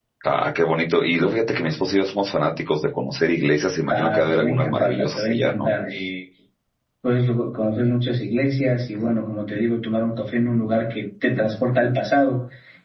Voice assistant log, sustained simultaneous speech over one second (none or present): present